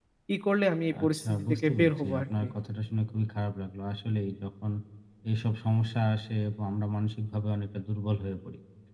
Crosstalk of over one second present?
Yes, from 1.0 s

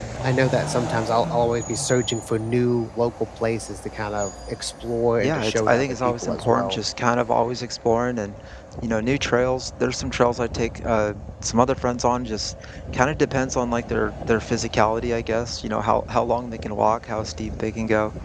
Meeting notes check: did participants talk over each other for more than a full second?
Yes, from 5.2 s

